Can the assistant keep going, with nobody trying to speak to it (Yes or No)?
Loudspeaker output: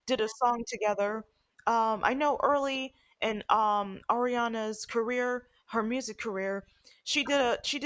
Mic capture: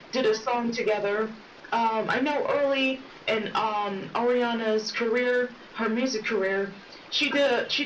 Yes